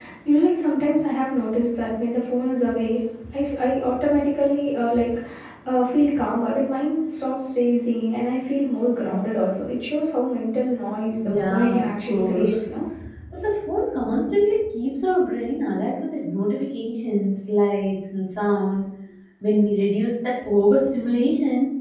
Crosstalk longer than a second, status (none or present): present